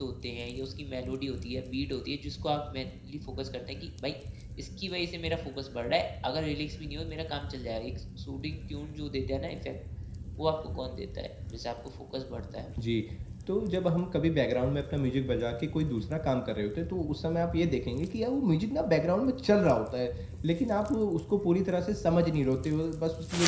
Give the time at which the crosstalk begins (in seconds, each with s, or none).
none